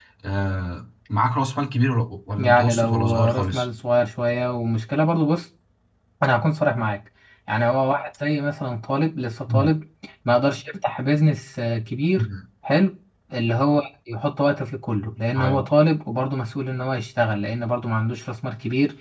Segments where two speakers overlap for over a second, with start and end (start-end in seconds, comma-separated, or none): 2.4-3.7